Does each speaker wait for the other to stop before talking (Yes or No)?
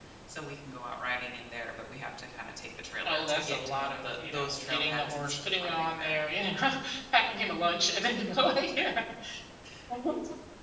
No